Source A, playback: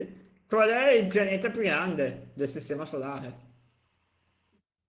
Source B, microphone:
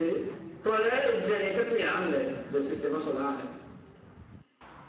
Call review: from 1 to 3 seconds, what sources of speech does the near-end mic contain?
echo only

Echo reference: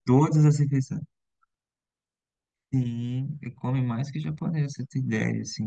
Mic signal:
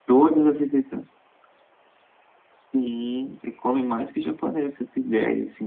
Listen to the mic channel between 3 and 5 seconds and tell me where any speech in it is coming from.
echo only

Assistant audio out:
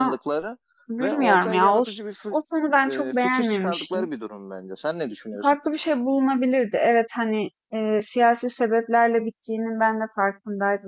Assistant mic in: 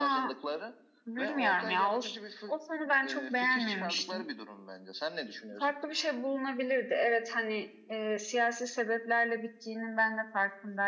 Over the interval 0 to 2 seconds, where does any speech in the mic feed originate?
echo only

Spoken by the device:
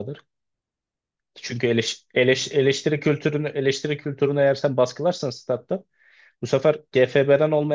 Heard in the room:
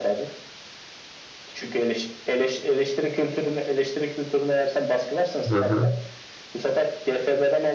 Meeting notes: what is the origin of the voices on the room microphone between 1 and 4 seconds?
echo only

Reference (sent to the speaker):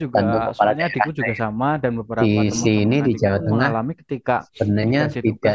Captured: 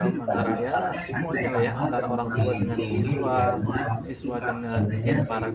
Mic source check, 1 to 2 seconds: both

